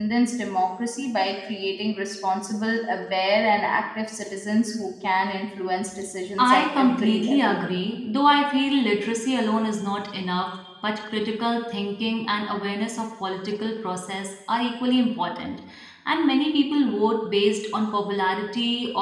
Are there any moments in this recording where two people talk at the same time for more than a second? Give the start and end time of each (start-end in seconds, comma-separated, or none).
6.4-7.6